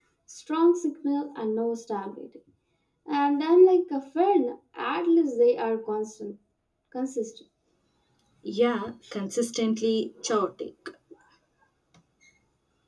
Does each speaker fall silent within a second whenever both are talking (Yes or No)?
Yes